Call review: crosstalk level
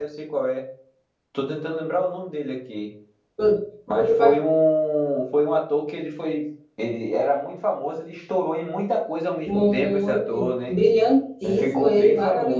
present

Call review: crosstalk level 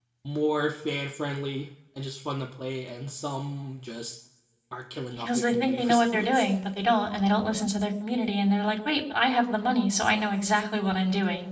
present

